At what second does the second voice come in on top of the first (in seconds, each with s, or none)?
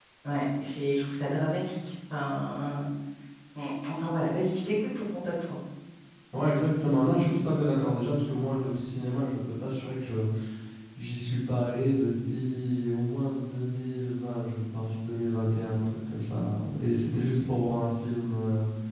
none